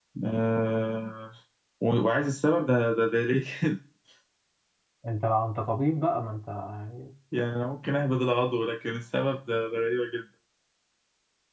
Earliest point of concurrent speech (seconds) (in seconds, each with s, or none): none